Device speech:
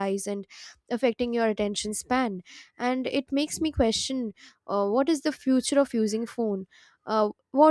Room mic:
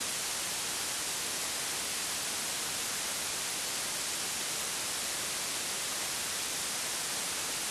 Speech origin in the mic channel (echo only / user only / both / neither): neither